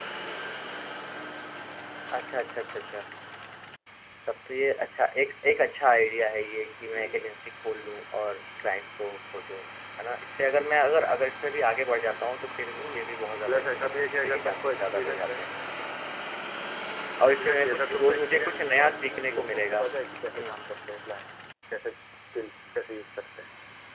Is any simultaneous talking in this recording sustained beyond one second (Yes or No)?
Yes